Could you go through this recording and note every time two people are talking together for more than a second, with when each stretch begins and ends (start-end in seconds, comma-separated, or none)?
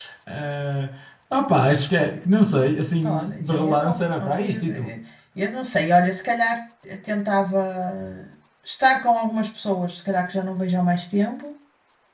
3.0-4.9